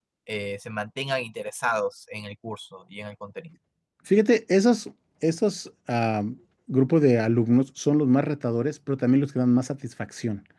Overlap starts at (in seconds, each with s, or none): none